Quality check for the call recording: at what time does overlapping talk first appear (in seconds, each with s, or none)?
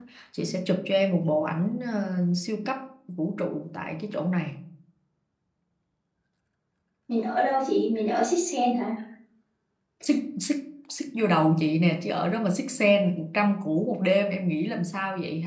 none